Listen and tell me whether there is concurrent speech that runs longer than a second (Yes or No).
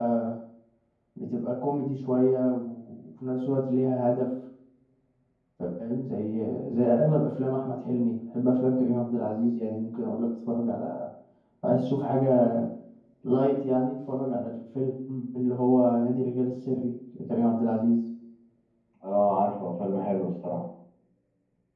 No